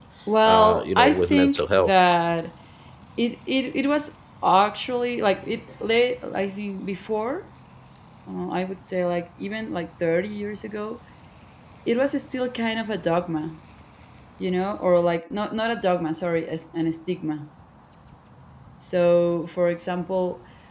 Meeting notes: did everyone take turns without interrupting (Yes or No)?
No